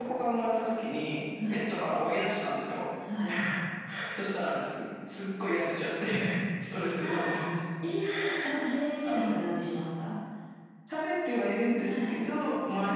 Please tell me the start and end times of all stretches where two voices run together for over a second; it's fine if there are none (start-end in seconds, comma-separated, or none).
none